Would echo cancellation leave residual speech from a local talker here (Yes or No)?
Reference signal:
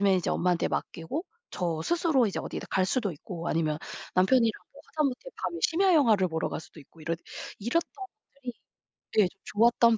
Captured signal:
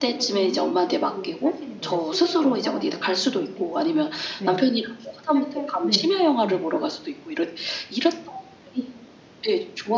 Yes